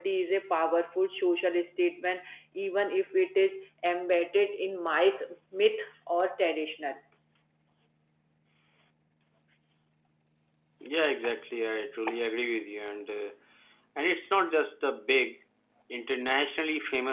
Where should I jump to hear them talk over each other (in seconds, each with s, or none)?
none